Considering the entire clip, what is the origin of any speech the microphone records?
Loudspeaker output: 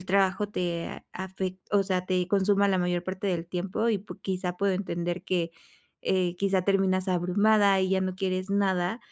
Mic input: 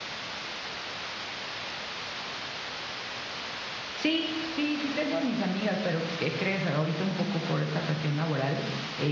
user only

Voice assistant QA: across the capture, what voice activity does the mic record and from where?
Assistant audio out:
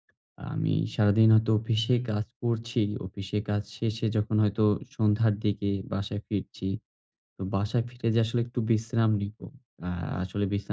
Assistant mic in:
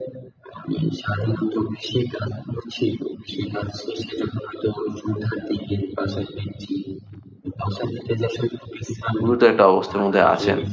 both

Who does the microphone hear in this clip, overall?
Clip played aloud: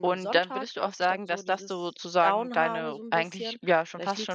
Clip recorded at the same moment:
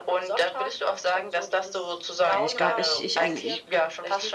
both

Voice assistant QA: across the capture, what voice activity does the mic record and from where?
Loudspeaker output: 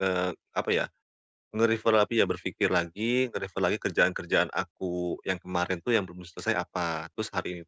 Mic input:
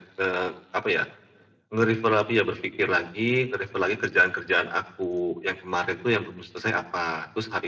echo only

